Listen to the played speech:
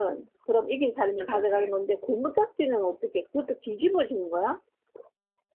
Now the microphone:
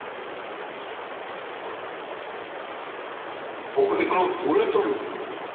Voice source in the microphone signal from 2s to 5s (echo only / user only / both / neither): user only